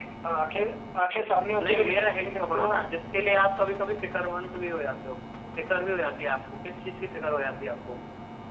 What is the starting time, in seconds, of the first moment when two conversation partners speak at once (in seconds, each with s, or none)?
1.6 s